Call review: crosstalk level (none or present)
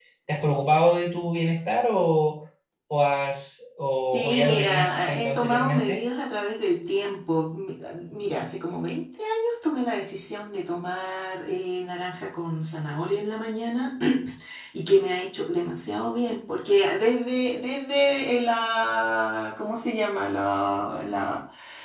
present